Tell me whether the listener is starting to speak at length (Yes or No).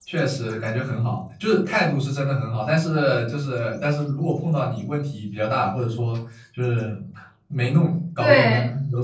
No